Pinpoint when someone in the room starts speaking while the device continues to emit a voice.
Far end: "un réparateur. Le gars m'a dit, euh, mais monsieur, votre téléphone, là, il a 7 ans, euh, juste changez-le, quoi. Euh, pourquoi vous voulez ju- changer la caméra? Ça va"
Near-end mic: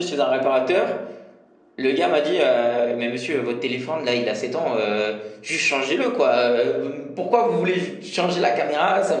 none

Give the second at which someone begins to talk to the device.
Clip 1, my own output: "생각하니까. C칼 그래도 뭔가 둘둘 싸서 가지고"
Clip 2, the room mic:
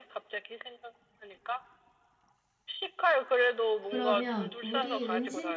4 s

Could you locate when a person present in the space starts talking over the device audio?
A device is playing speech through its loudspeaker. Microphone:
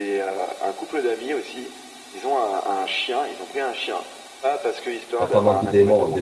5 s

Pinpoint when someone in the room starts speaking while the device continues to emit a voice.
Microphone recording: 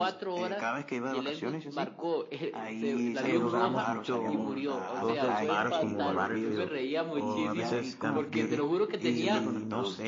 3 s

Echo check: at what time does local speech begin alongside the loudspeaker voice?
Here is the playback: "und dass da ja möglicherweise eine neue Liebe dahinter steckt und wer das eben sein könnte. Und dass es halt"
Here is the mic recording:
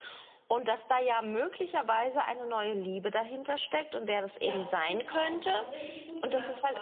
4 s

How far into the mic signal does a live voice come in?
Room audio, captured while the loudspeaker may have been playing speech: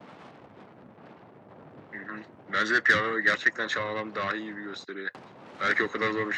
none

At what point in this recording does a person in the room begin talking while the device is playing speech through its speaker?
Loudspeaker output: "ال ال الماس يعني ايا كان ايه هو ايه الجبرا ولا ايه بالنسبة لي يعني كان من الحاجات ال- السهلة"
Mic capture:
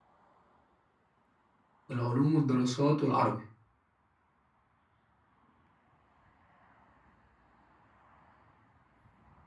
2 s

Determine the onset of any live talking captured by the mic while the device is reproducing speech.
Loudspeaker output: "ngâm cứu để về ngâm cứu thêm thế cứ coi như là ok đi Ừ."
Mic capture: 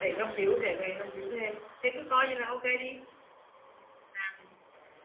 none

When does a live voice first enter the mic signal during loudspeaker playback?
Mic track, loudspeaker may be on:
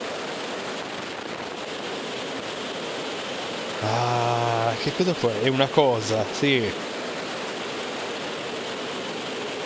4 s

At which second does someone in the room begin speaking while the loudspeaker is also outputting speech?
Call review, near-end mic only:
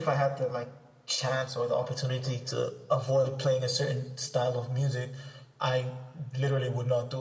none

